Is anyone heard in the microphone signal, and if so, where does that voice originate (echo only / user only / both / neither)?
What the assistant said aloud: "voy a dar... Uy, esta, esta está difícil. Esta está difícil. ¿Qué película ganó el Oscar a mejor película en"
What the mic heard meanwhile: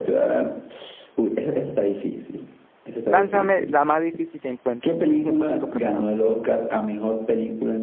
both